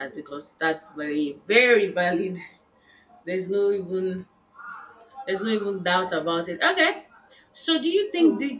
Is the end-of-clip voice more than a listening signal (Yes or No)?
No